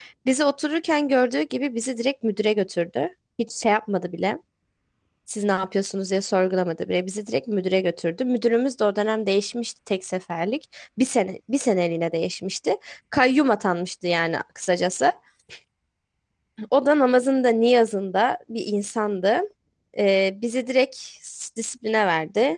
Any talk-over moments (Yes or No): No